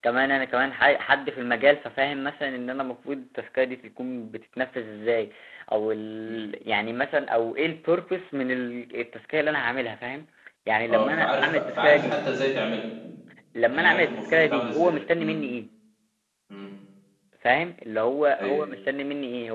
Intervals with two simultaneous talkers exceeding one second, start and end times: 10.9-12.2, 13.7-15.3

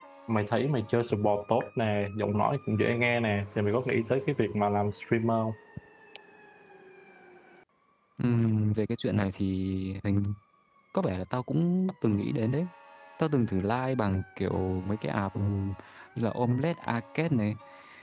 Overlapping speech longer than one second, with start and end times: none

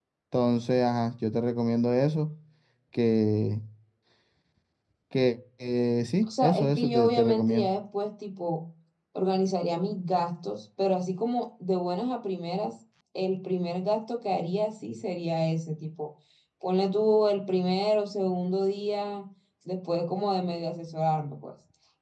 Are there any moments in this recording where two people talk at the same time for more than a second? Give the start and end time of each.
6.4-7.7

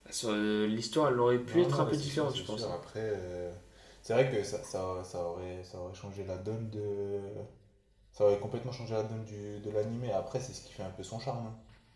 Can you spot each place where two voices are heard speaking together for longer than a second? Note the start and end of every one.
1.4-2.8

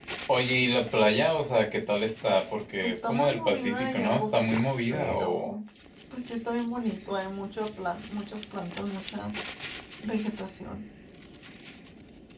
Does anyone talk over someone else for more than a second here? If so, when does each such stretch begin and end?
2.8-5.5

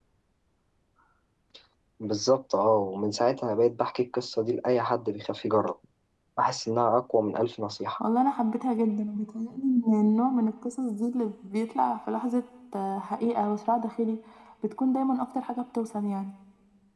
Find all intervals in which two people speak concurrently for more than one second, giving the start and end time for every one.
none

